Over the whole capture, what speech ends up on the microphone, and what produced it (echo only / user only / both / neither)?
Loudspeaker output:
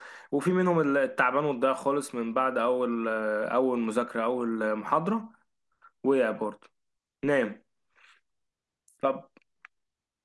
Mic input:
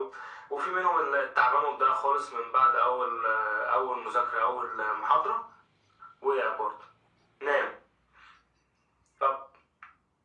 echo only